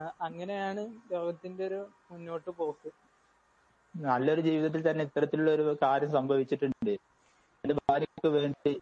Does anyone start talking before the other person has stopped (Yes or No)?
No